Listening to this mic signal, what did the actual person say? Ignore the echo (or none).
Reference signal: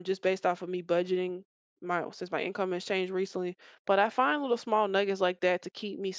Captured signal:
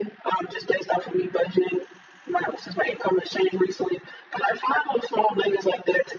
none